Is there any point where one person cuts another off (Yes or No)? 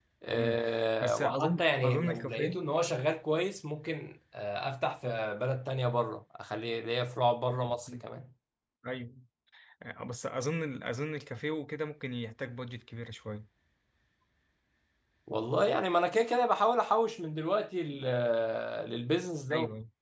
Yes